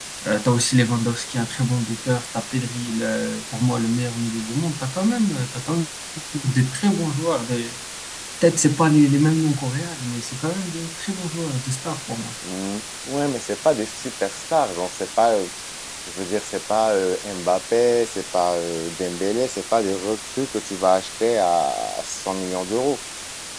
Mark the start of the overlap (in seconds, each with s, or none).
none